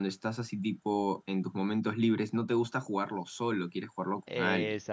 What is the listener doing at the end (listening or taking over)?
taking over